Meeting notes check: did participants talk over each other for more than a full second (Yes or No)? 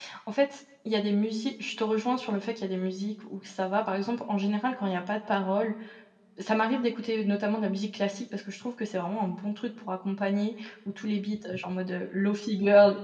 No